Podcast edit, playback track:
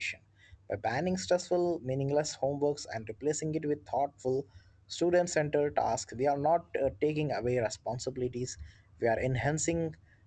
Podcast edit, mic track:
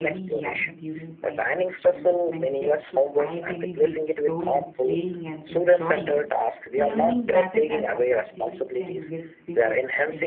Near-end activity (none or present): present